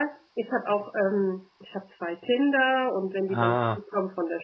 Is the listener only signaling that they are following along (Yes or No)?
Yes